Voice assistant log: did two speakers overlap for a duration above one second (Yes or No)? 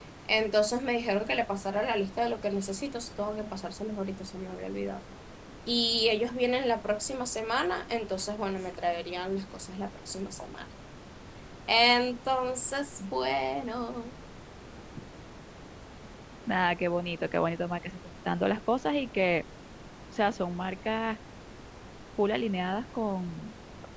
No